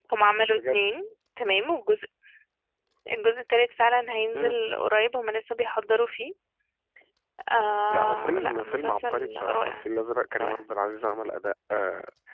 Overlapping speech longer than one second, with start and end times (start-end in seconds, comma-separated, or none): 7.9-9.8